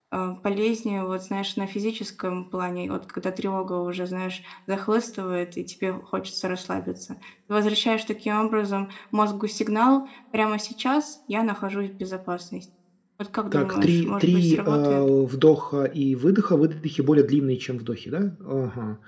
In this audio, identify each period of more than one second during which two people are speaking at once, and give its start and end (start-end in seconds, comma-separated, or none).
13.5-15.1